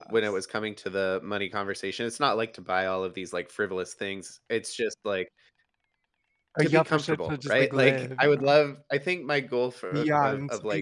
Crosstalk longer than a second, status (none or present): present